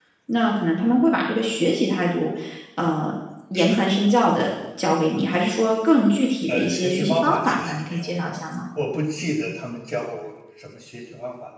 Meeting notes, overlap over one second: present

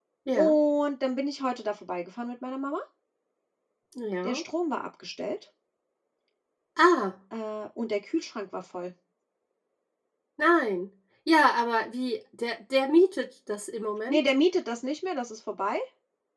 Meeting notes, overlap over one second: none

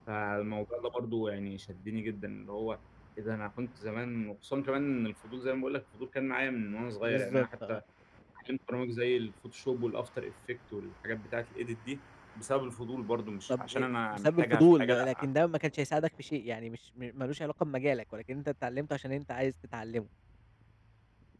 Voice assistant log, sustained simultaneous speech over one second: present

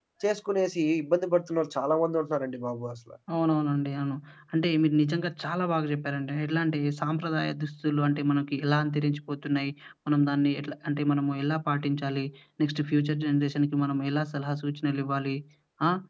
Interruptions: none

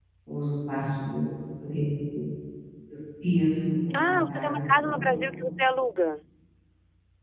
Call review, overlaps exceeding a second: present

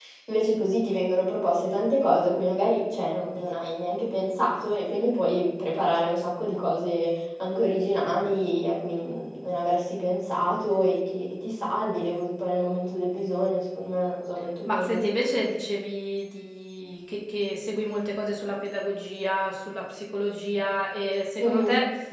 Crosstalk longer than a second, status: none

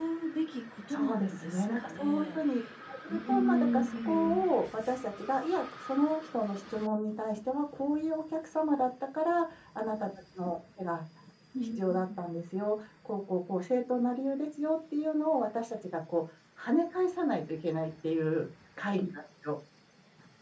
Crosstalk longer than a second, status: present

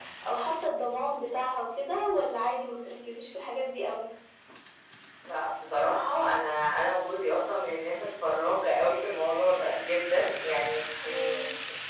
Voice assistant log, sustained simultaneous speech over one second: none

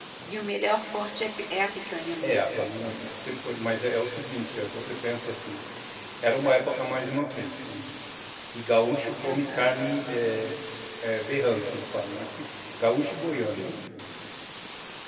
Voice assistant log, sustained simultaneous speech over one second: none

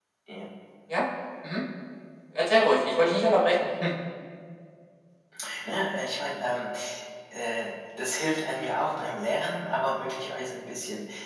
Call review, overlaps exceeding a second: none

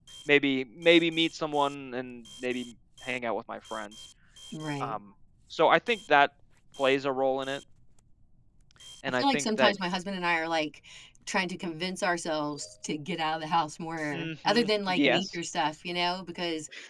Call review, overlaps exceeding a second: present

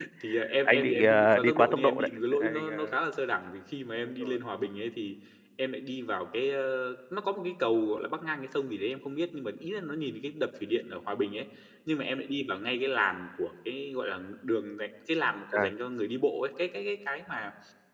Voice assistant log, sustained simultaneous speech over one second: present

